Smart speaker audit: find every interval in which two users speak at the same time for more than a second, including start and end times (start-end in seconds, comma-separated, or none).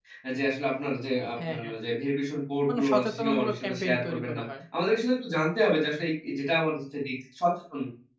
2.7-4.4